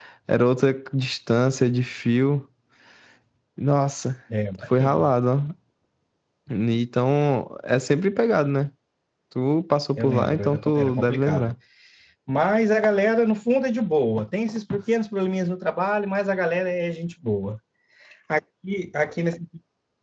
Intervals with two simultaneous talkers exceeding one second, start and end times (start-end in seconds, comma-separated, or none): 10.0-11.5